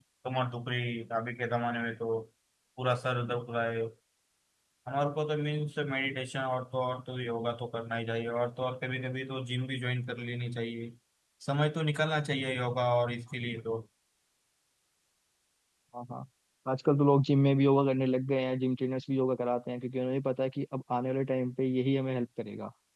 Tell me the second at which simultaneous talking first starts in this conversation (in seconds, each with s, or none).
none